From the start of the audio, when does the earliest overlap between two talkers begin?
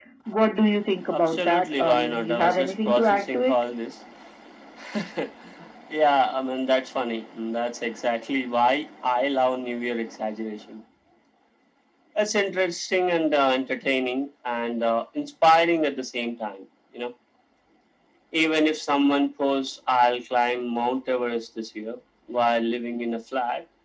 1 s

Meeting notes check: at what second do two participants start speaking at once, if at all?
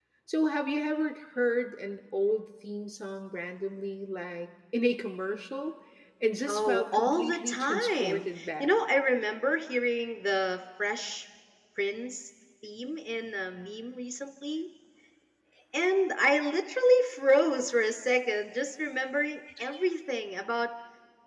6 s

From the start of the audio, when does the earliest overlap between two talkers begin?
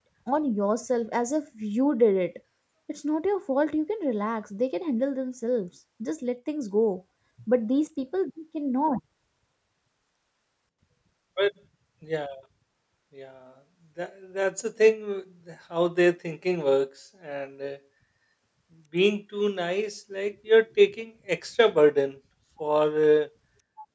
none

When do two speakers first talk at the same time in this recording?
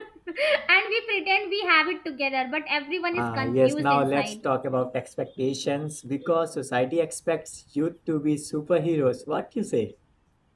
3 s

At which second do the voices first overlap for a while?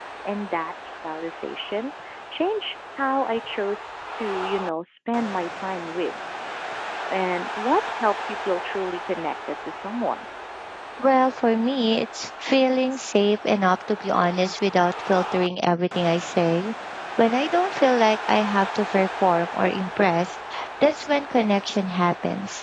none

